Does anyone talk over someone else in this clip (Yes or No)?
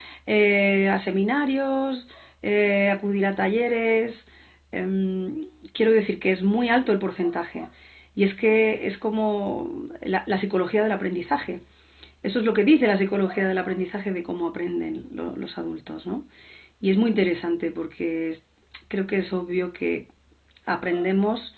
No